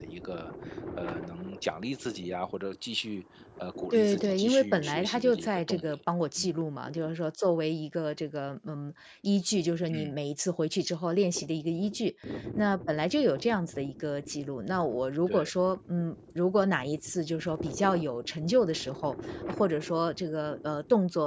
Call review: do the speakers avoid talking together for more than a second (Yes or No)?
No